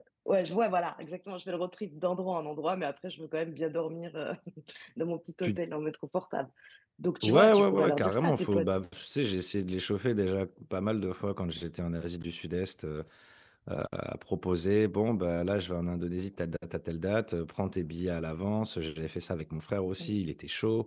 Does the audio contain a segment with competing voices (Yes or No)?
Yes